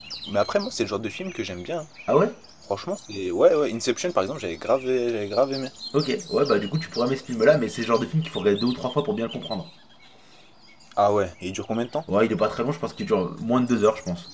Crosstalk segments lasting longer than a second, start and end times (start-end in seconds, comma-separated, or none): none